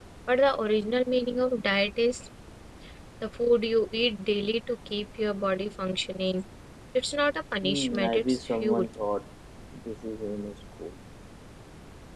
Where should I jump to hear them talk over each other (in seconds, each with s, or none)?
7.6 s